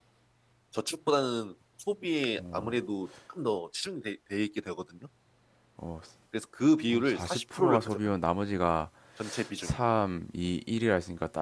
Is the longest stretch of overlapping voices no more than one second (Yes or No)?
No